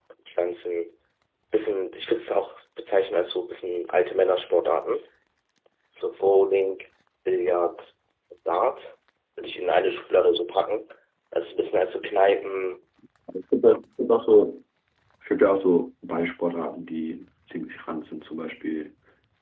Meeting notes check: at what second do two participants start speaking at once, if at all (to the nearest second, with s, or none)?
none